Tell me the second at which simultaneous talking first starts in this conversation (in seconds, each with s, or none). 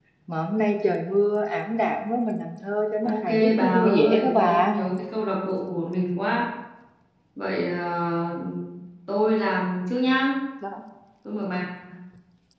3.0 s